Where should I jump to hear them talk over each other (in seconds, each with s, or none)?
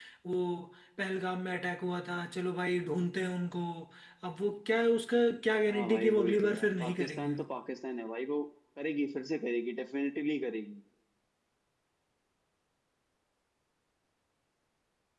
5.7 s